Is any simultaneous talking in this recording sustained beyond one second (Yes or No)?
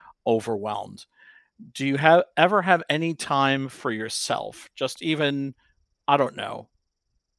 No